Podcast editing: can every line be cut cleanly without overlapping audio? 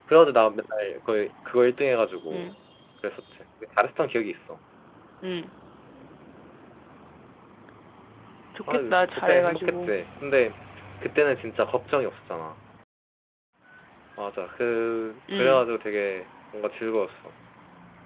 No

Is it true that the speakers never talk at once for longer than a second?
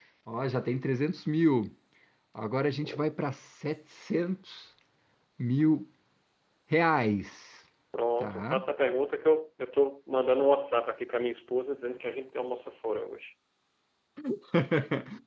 Yes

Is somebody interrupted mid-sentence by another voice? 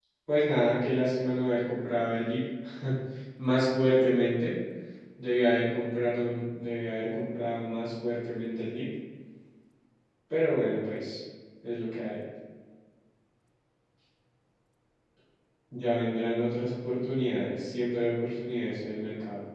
No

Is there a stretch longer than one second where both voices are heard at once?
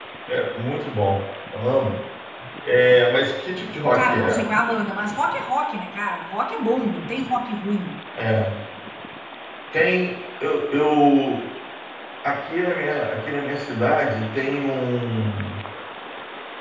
No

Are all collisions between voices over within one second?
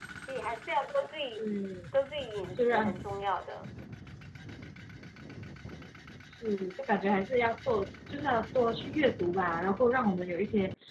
Yes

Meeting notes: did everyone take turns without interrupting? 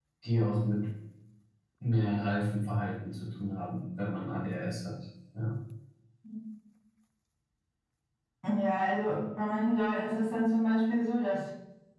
Yes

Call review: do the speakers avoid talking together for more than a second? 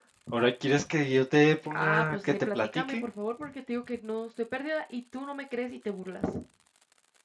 No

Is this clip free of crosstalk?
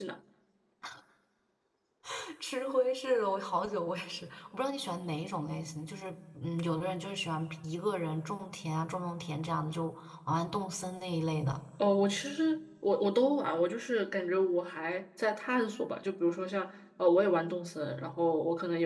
Yes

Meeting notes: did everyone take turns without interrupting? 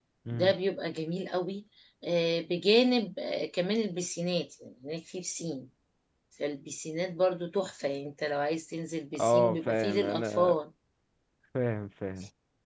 No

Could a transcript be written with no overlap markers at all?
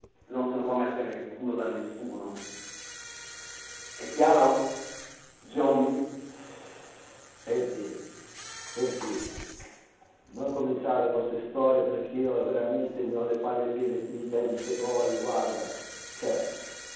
Yes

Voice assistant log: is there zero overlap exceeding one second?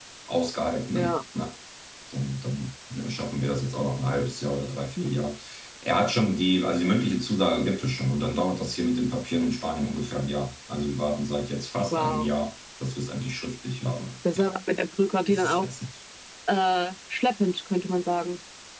Yes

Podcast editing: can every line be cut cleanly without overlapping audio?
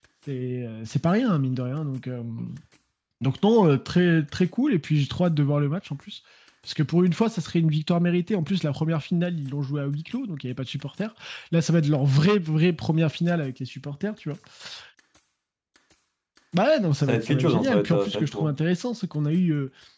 No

